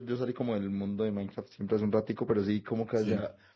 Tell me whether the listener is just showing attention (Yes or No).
Yes